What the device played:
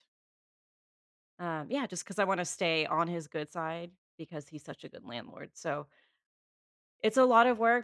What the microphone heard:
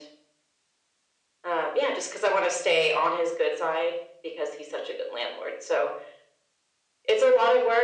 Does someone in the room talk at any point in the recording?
No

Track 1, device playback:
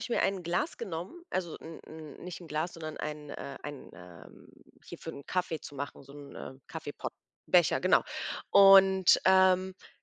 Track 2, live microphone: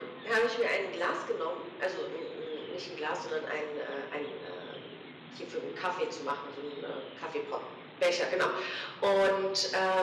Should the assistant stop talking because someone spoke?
No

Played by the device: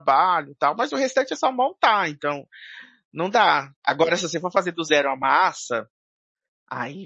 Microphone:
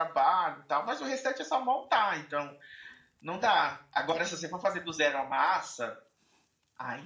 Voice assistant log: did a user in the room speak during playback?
No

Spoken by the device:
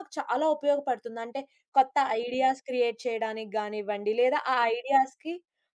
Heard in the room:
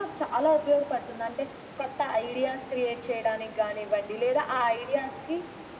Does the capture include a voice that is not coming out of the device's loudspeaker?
No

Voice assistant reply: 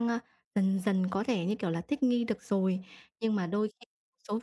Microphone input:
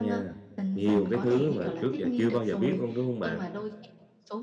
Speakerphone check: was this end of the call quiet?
No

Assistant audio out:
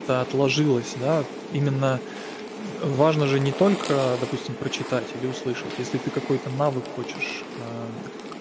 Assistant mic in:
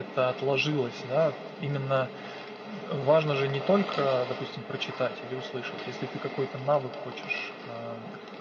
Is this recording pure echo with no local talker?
Yes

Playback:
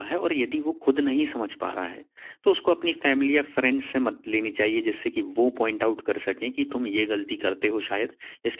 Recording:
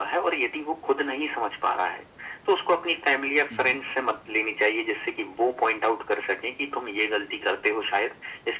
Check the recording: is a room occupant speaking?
Yes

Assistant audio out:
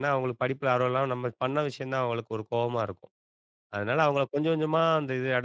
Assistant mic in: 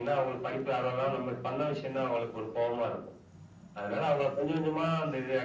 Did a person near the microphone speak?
No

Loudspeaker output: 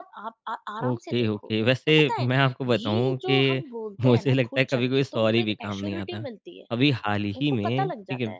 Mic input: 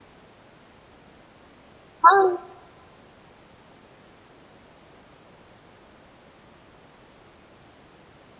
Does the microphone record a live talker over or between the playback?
Yes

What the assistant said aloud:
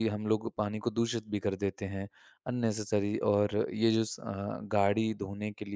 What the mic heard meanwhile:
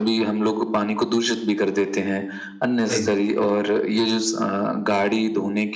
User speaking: Yes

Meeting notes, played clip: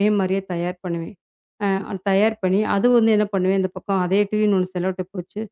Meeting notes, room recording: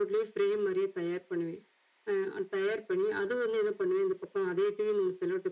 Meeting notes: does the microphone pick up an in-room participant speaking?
No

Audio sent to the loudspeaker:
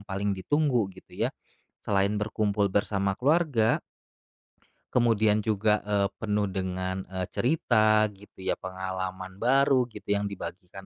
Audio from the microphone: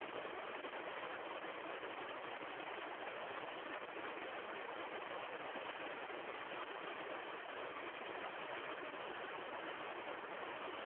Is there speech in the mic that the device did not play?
No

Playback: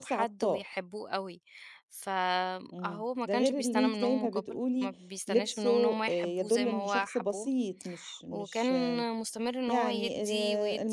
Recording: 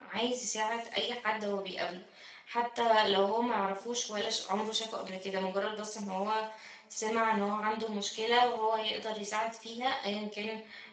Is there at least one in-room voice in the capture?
Yes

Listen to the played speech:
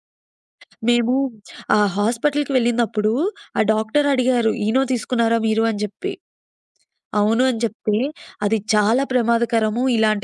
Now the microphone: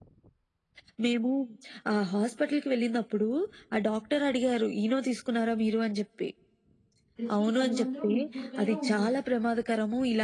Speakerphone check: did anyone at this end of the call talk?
Yes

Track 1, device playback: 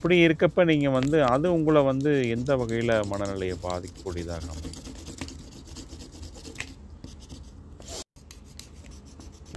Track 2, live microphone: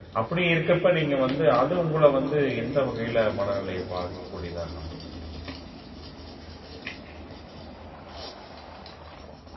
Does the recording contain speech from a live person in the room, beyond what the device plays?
No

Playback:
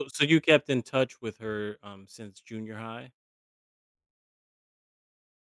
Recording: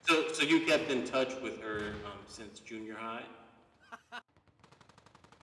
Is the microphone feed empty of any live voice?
Yes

